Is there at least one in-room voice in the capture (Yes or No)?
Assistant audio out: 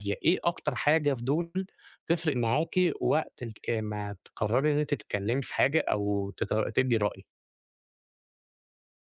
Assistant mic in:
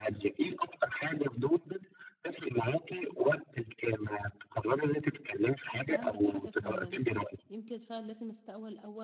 Yes